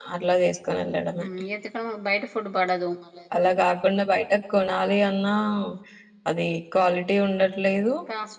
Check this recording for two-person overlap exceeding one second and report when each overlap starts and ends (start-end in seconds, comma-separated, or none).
none